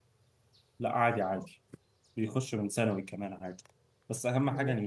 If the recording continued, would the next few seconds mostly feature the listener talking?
No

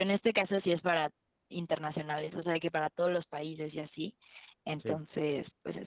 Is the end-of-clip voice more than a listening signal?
No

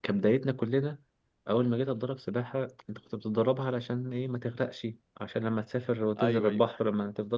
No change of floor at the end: Yes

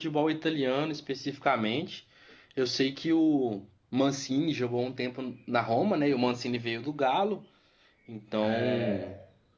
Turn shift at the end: No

